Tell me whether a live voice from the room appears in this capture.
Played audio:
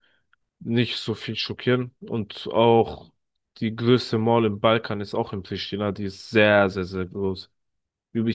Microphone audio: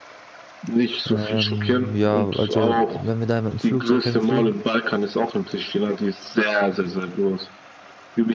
Yes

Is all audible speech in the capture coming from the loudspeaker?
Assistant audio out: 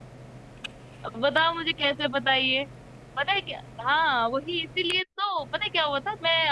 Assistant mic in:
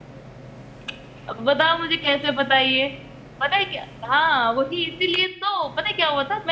Yes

